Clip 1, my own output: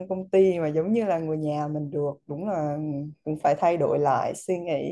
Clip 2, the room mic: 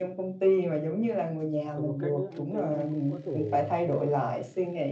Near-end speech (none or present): present